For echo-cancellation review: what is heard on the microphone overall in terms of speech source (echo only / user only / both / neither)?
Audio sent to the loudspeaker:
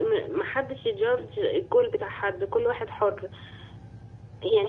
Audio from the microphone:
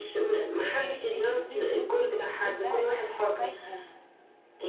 both